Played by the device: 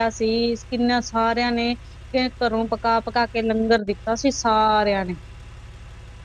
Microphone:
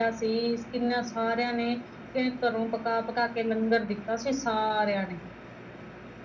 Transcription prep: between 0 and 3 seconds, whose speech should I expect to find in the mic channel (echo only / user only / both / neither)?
echo only